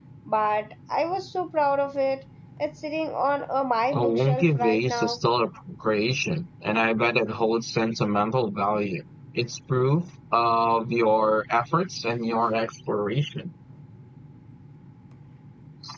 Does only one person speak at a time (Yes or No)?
No